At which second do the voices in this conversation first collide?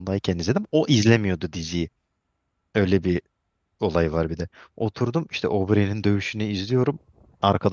none

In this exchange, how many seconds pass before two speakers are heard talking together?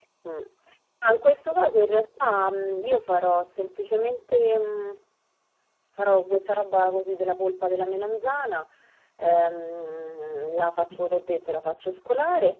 none

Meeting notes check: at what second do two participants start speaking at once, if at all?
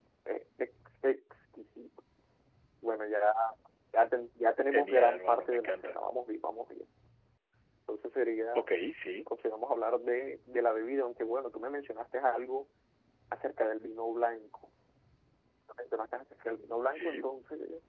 5 s

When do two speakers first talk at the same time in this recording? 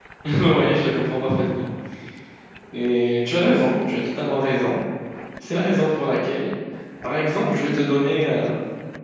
none

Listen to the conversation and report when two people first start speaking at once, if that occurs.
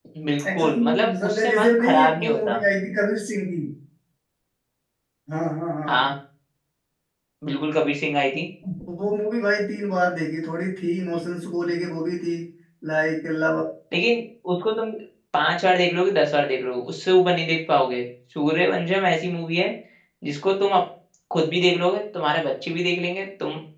1 s

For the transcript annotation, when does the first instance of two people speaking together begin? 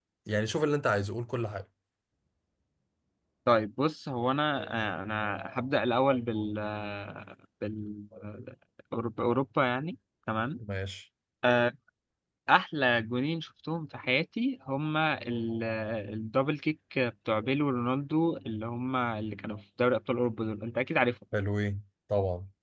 none

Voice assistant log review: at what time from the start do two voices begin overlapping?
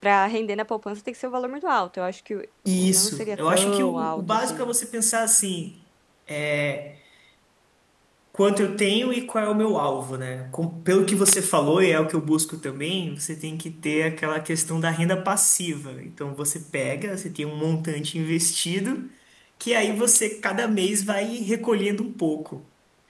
3 s

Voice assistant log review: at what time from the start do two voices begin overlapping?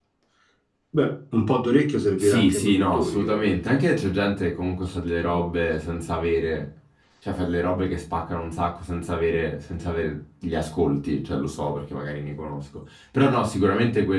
2 s

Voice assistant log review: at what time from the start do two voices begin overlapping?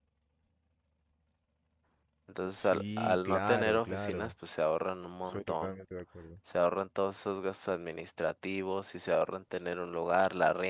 3 s

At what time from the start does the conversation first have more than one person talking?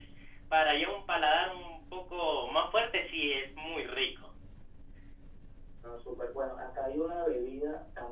none

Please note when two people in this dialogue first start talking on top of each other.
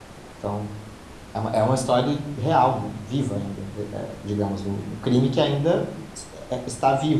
none

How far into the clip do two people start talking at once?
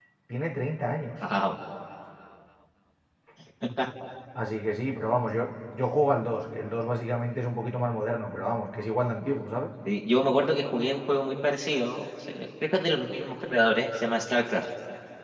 none

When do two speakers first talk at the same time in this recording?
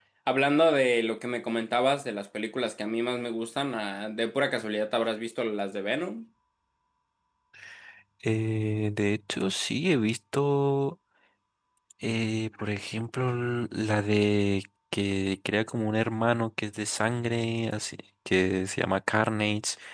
none

